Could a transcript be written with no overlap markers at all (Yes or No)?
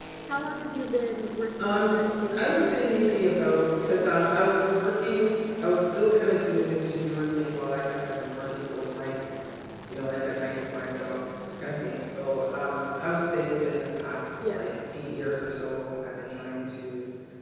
No